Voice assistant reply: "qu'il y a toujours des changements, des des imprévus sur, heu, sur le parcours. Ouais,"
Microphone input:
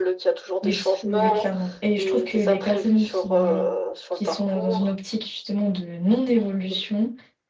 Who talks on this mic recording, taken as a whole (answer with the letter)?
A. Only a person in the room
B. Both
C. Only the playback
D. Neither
B